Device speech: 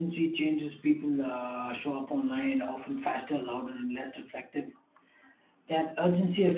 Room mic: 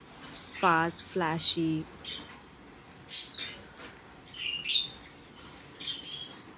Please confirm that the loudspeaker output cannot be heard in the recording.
Yes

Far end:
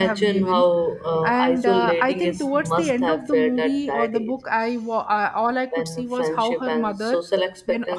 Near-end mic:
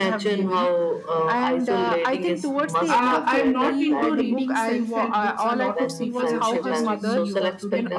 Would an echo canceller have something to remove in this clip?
Yes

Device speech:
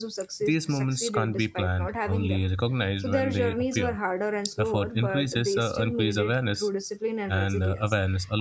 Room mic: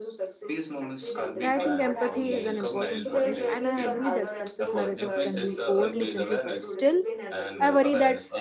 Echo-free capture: No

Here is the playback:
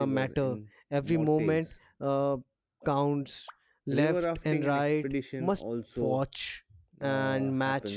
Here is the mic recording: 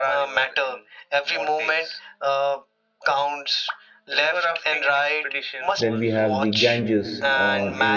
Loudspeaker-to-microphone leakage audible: Yes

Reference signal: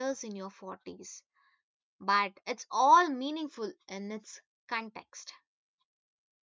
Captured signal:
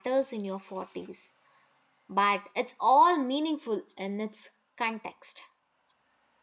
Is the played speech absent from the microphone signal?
No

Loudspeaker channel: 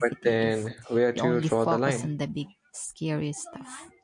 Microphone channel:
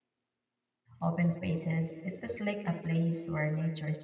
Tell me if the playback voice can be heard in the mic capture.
No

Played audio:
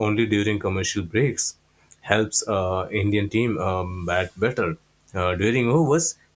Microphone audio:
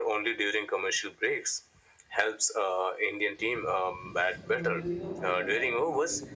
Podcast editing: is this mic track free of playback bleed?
No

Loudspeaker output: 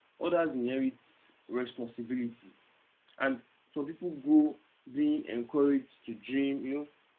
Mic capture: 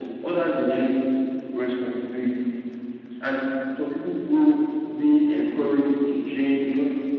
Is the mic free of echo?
No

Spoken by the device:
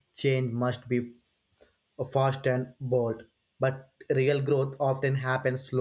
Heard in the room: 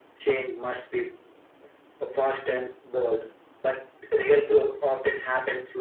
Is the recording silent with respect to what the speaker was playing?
No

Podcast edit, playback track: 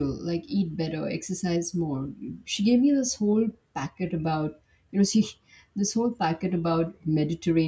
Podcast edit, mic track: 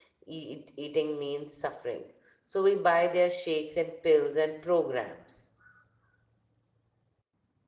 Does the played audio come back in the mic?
No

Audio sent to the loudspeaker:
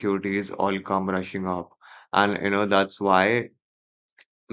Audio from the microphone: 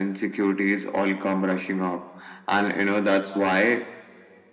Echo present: Yes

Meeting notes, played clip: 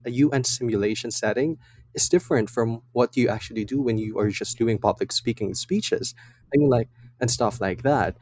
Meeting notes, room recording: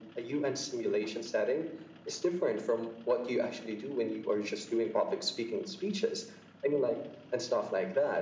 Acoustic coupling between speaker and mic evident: Yes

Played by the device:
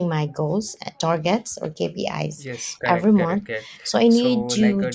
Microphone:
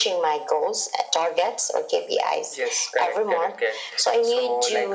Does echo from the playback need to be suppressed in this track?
Yes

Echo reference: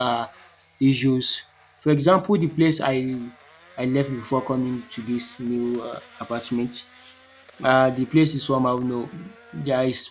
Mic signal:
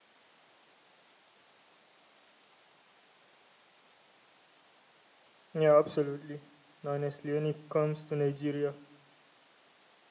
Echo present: No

